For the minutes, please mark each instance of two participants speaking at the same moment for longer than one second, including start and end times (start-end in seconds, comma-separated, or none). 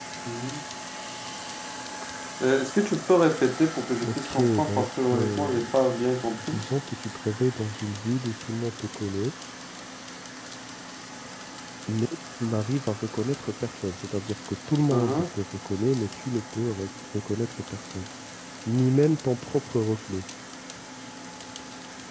4.0-5.6